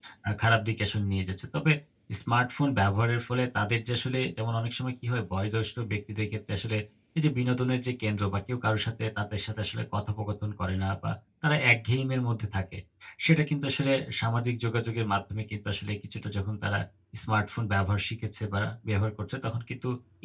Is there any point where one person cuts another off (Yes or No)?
No